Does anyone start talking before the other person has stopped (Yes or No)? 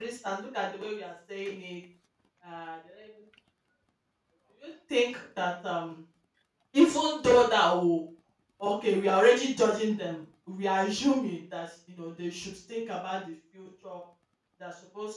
No